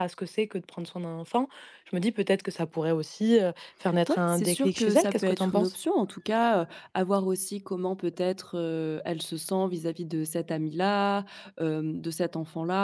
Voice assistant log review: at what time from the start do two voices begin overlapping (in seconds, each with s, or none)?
4.1 s